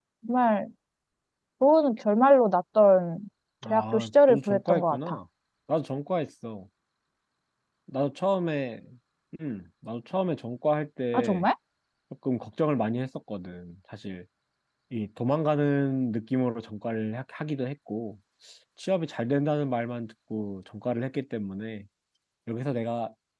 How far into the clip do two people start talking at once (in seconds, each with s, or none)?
3.7 s